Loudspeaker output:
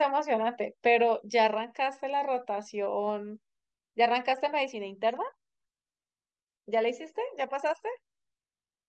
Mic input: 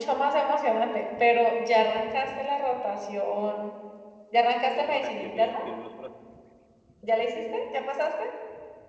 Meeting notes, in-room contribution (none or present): present